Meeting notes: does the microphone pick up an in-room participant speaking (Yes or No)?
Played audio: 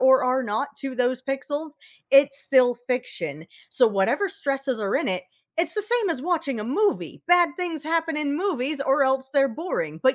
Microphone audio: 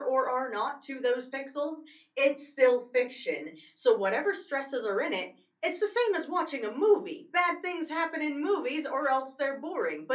No